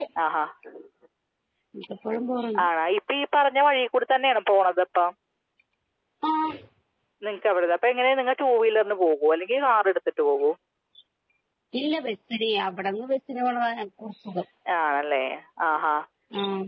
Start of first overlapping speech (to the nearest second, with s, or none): none